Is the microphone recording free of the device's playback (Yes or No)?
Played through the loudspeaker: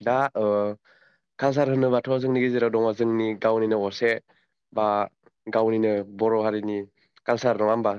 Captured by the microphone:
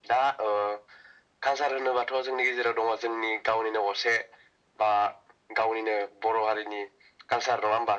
No